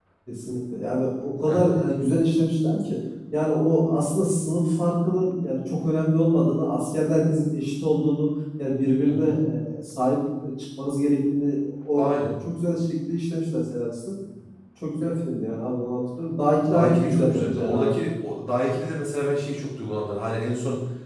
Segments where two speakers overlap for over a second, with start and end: 16.7-18.0

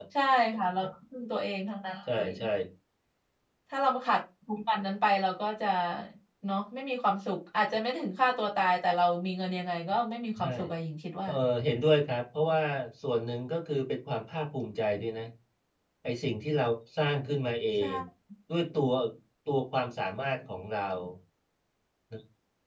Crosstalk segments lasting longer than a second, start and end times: none

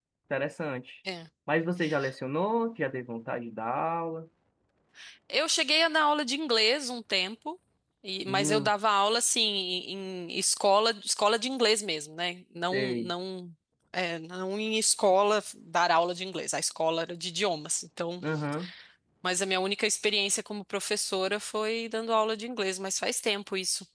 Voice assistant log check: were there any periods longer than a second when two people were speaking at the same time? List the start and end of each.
none

